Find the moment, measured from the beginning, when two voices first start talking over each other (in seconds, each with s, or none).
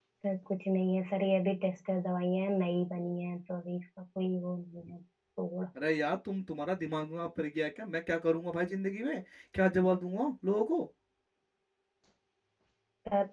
none